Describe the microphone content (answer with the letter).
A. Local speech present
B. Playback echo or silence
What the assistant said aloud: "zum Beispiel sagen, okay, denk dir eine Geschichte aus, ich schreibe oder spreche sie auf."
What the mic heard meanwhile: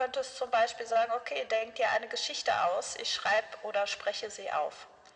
B